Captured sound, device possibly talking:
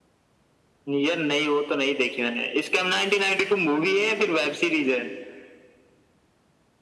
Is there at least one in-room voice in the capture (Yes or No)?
No